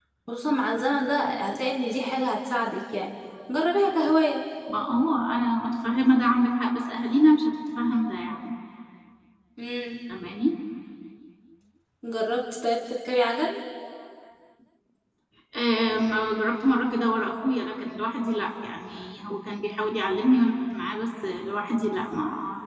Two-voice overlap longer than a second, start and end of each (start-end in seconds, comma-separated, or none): none